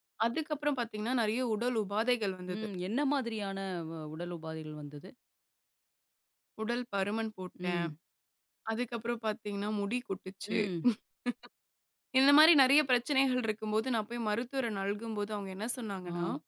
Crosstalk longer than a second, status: none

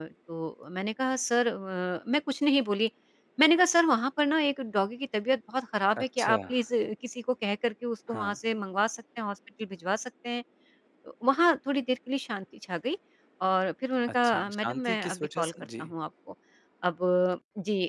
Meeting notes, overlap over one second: present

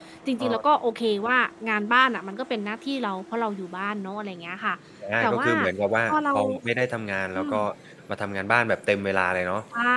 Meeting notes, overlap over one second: none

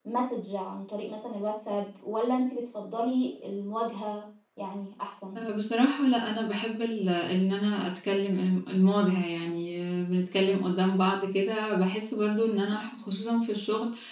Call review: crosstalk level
none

